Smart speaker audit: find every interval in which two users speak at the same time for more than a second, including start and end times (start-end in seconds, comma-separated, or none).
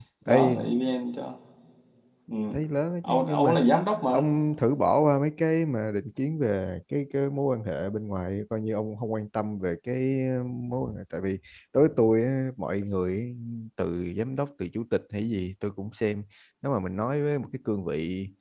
none